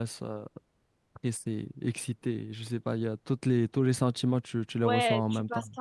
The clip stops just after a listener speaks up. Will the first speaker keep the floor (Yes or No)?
No